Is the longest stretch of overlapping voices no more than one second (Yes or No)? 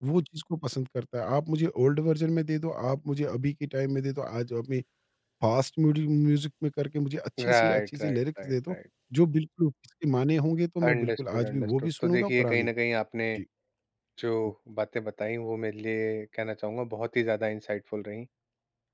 No